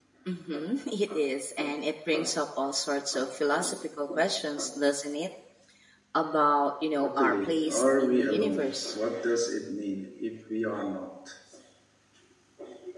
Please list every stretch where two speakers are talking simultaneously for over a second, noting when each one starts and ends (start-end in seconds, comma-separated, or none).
7.0-8.9